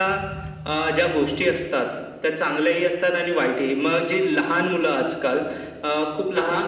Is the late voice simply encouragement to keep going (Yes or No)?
Yes